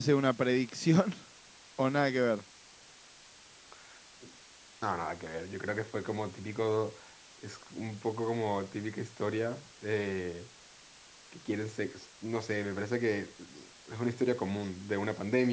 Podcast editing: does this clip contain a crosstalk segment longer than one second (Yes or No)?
No